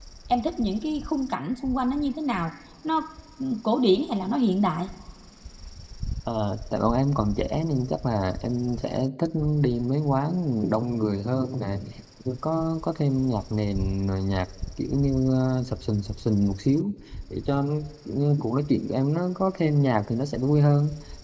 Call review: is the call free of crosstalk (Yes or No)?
Yes